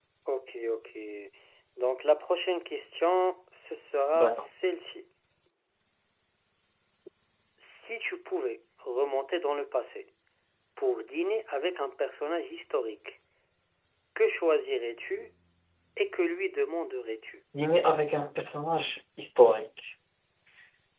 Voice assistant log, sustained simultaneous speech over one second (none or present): none